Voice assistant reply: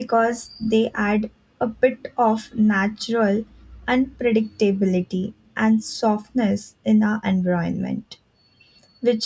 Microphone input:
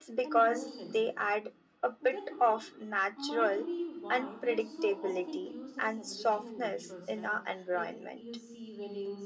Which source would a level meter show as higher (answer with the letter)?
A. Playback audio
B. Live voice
A